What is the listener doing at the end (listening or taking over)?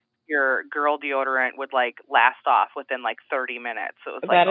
taking over